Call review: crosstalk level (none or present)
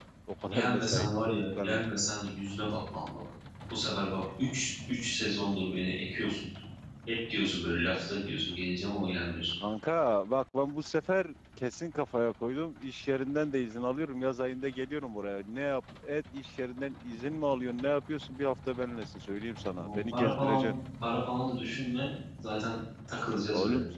present